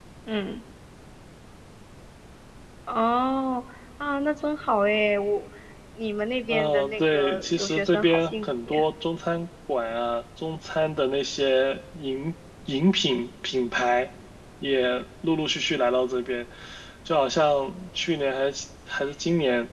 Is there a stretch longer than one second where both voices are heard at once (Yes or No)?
Yes